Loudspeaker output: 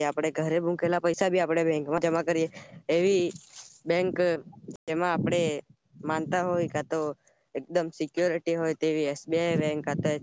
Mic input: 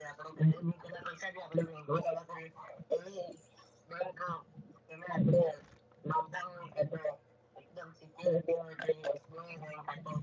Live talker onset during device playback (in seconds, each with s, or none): none